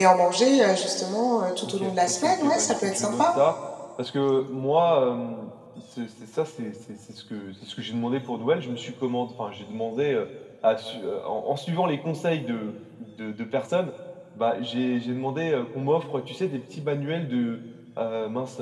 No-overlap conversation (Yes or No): No